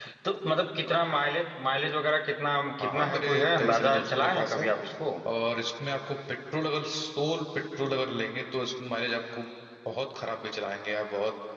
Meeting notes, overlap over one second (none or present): present